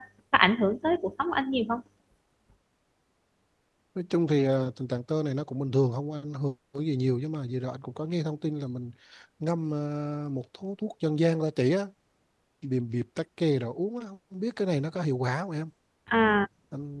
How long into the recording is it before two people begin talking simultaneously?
none

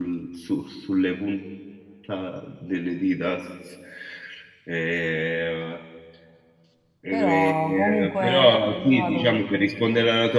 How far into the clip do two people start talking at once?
7.1 s

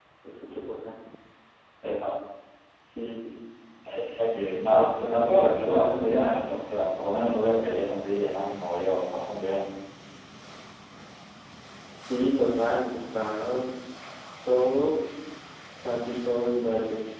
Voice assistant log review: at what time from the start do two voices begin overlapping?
4.7 s

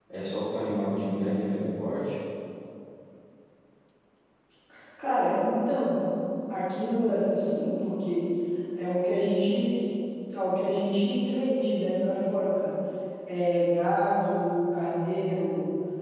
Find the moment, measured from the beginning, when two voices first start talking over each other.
none

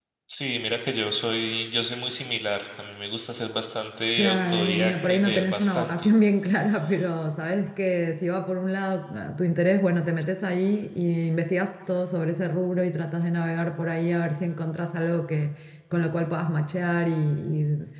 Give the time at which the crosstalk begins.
4.2 s

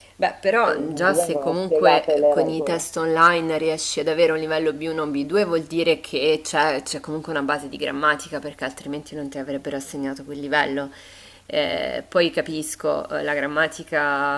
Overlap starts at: 0.7 s

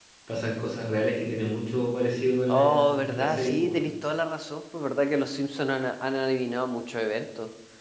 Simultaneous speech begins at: 2.5 s

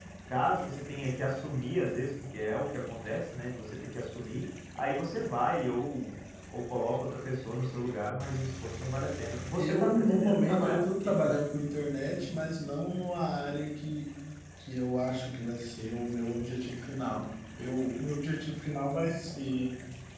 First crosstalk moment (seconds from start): 9.6 s

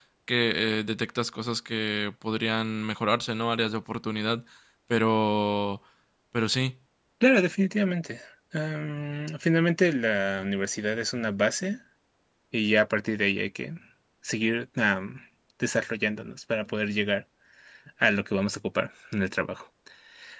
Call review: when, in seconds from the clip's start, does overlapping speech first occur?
none

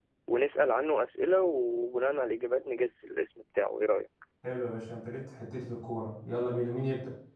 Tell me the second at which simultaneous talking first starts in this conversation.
none

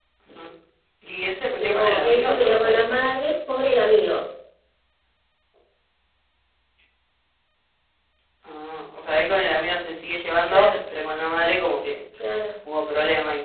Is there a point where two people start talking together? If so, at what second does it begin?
1.6 s

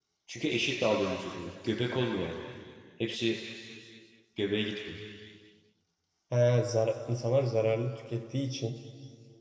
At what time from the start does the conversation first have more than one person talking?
none

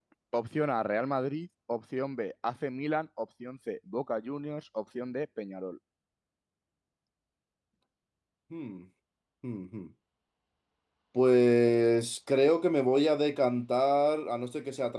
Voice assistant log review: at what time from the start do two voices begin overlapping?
none

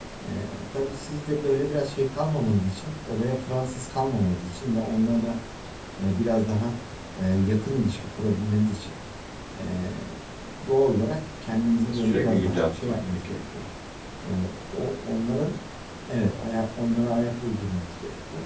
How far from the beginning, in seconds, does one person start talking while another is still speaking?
11.9 s

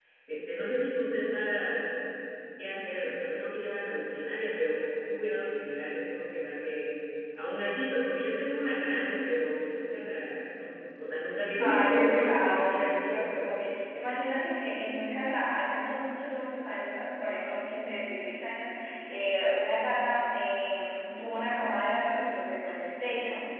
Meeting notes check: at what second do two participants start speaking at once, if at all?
11.6 s

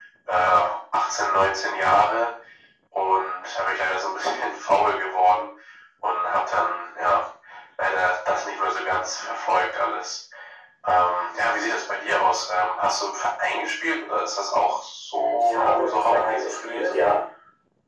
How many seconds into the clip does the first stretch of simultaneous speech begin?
15.4 s

